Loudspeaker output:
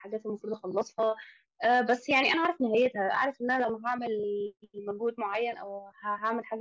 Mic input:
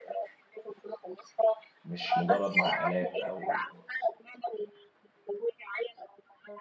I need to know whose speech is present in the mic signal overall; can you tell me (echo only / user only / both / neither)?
both